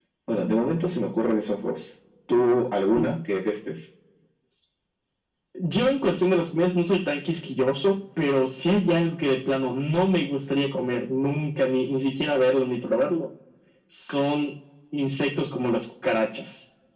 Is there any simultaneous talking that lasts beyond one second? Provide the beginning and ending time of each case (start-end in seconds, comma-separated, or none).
none